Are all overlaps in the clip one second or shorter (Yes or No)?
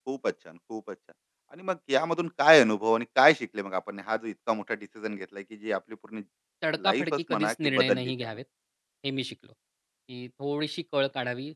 No